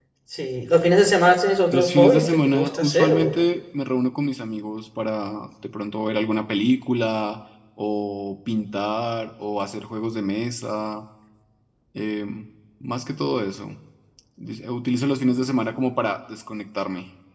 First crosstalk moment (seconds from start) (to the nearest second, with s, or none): 2 s